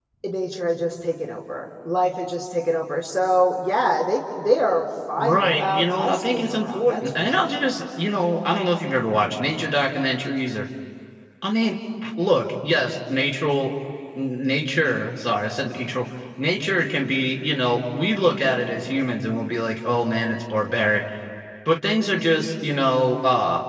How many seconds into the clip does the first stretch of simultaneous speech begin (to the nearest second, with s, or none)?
5 s